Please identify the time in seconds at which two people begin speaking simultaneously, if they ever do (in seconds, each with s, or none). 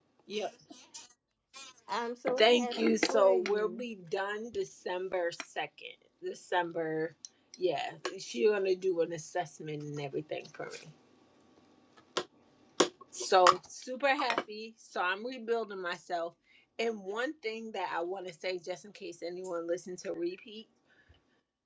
2.4 s